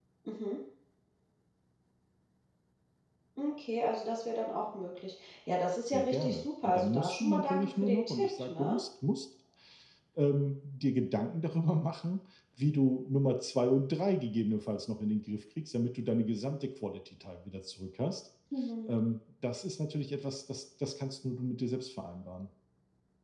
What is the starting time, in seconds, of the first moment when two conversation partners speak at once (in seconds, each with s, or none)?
5.8 s